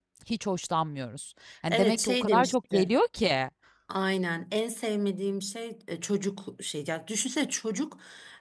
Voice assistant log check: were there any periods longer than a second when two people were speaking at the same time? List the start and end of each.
1.7-2.9

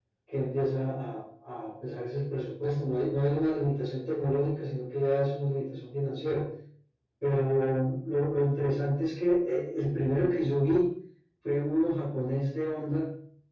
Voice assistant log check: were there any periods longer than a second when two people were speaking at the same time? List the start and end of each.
none

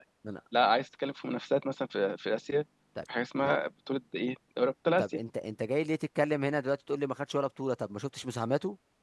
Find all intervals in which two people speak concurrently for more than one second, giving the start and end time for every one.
none

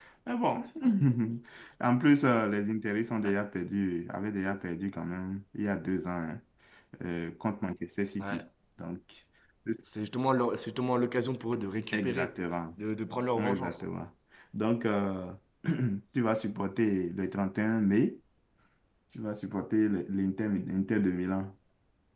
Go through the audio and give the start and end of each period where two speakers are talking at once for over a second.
none

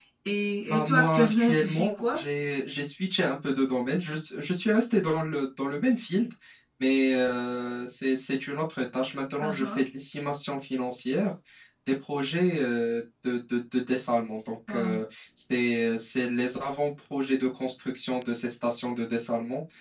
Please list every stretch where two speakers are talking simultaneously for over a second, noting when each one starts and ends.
0.7-2.2

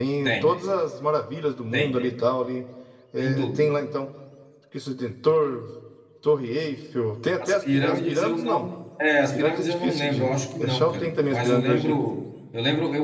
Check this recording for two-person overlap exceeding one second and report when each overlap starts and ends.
7.4-8.7, 9.3-12.0

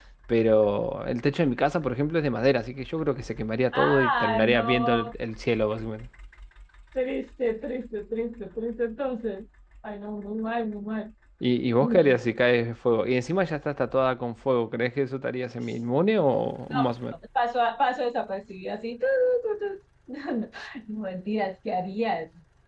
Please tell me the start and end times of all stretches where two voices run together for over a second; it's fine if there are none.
3.7-5.1

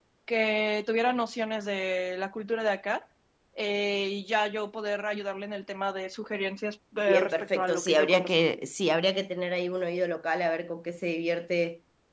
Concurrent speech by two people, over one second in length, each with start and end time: 7.0-8.3

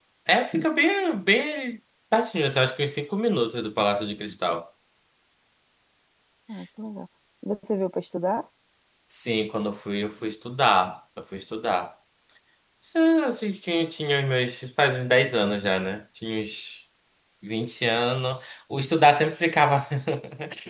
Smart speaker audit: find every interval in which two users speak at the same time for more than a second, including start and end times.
none

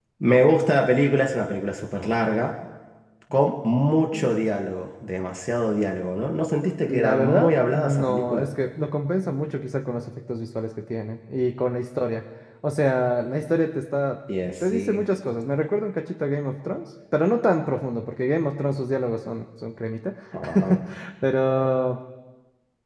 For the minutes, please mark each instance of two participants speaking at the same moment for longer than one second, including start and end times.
6.8-8.5

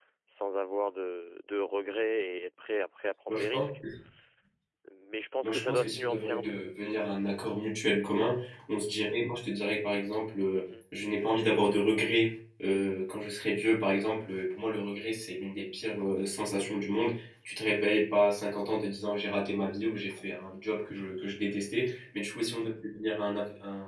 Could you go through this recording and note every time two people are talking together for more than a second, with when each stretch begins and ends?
5.4-6.6

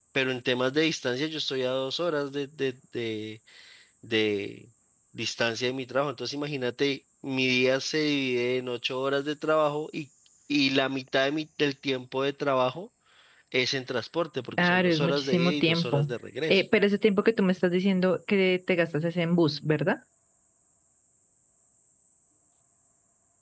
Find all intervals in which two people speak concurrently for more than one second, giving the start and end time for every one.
14.5-16.1

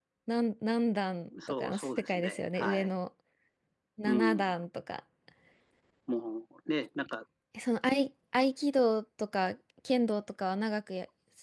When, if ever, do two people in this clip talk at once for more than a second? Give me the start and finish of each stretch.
1.6-2.9

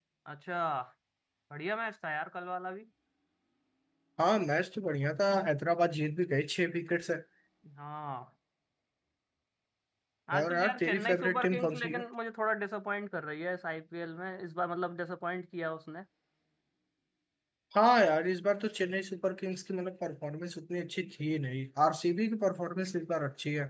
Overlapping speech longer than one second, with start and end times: 10.4-12.0

